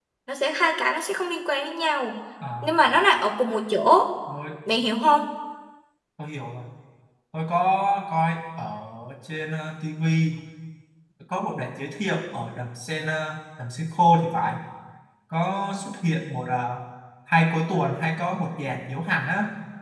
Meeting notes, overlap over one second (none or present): none